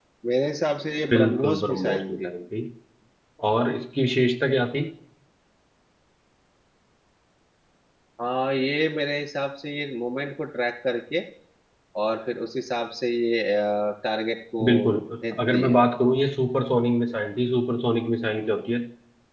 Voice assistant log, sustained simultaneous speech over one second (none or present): present